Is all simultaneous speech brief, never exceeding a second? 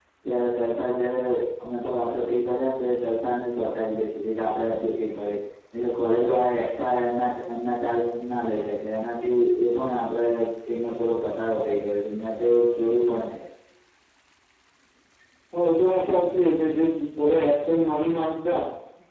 Yes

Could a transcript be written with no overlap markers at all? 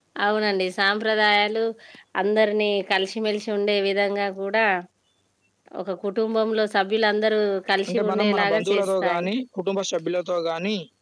No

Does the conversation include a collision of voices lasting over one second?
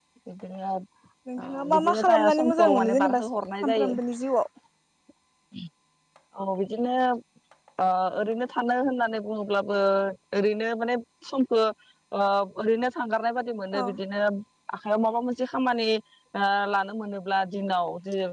Yes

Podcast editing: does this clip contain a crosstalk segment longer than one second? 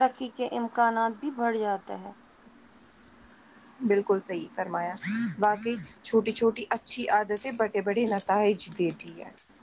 No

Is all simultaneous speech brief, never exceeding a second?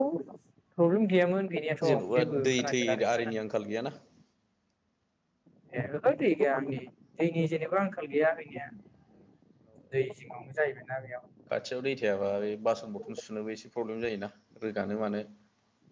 No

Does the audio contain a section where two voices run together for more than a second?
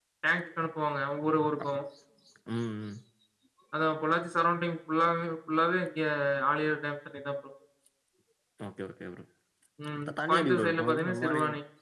Yes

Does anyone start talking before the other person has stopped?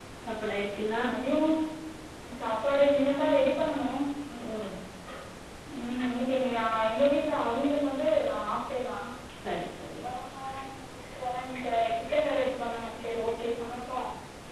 No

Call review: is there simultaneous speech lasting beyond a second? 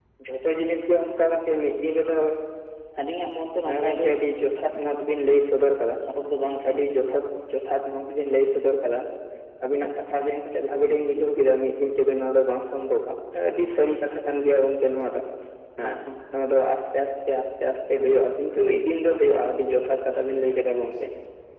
No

